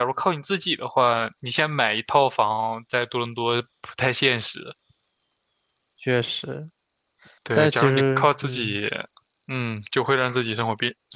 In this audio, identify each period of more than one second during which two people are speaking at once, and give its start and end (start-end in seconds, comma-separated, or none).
7.6-8.8